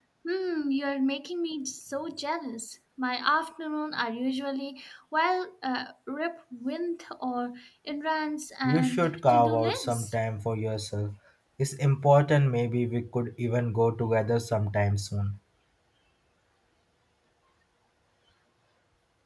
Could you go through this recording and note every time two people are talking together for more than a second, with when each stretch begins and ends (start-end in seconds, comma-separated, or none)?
8.6-10.1